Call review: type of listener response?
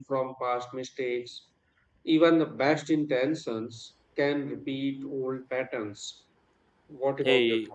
taking over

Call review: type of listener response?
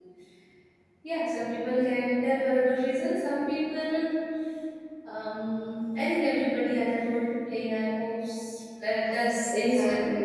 listening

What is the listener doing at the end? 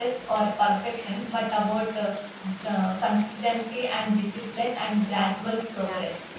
taking over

